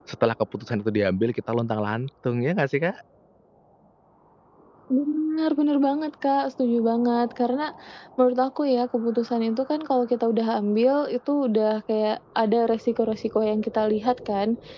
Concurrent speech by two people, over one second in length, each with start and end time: none

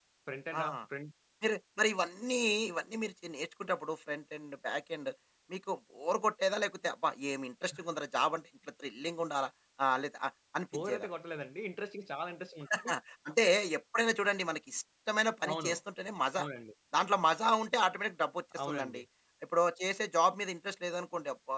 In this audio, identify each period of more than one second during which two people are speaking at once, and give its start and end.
none

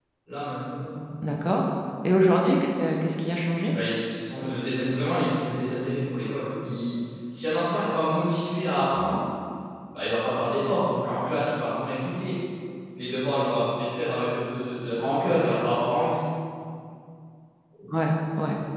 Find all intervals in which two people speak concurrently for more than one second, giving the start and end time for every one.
none

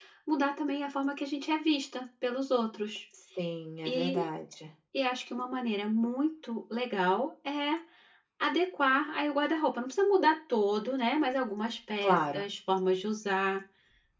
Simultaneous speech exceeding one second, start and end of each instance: none

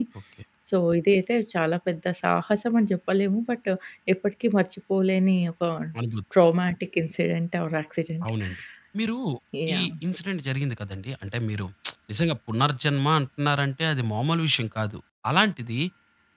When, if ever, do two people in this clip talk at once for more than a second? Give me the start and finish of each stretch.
none

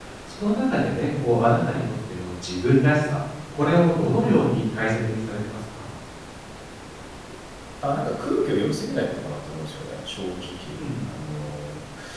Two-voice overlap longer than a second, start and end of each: none

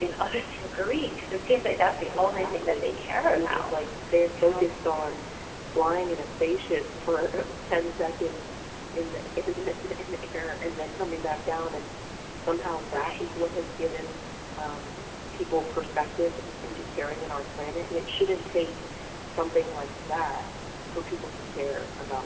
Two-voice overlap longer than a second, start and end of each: 2.2-3.7

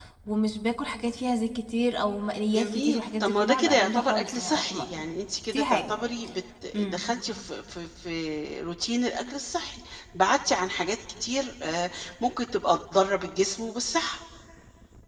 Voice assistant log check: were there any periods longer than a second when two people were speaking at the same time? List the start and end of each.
2.6-5.0

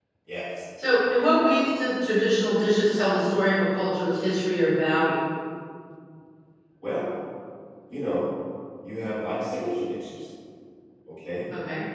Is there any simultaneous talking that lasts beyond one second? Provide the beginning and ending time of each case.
none

